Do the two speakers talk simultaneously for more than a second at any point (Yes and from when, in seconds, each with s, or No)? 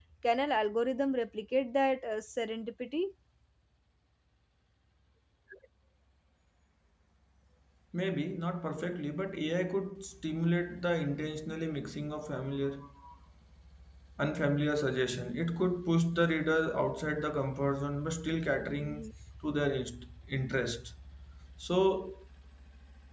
No